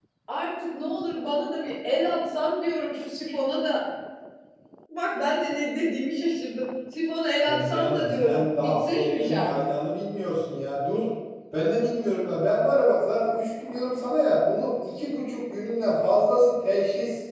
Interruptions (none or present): present